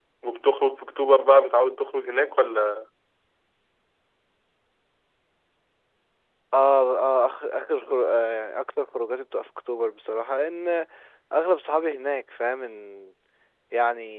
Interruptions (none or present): none